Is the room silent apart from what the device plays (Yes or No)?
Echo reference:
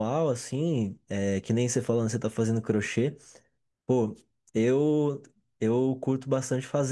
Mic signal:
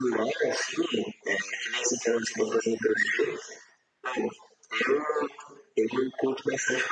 Yes